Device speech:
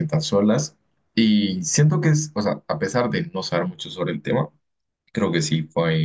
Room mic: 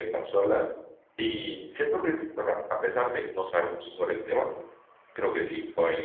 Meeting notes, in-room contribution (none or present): none